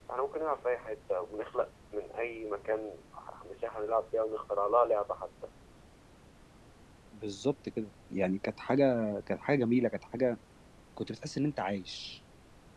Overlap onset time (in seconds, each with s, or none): none